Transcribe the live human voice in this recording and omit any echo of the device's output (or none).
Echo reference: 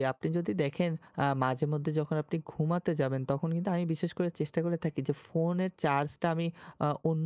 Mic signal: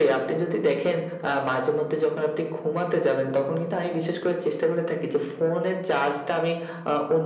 none